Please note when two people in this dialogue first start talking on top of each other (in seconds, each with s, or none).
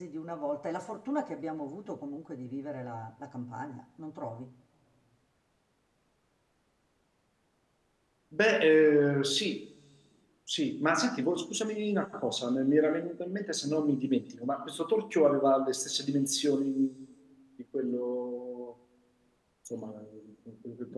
none